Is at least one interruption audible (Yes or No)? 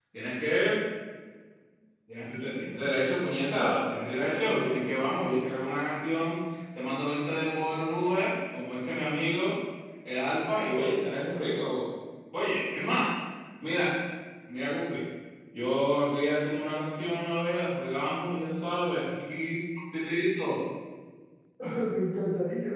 Yes